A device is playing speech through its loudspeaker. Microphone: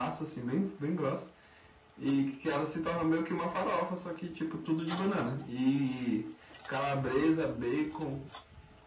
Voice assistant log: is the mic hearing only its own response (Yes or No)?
Yes